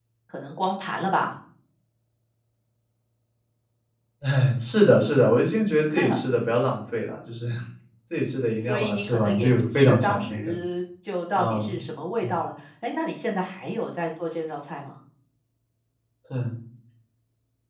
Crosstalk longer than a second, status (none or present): present